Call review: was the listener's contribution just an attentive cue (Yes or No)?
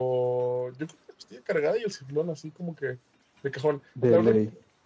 Yes